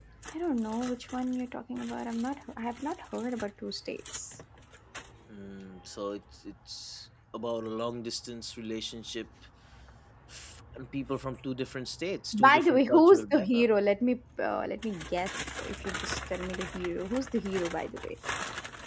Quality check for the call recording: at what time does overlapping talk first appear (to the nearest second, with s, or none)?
12 s